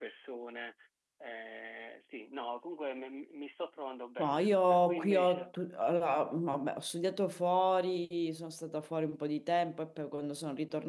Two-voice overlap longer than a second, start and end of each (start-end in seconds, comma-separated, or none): 4.2-5.5